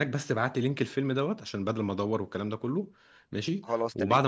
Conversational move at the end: listening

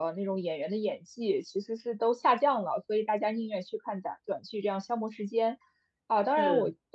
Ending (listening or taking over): listening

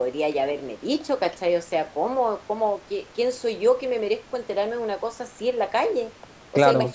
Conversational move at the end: listening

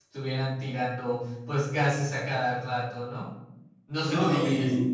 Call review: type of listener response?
taking over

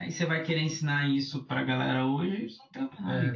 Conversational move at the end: taking over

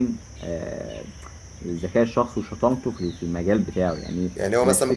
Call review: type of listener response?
taking over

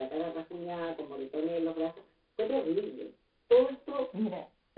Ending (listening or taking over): listening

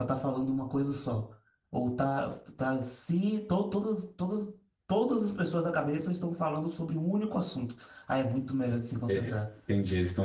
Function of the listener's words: taking over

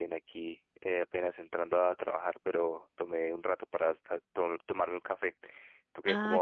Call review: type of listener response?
taking over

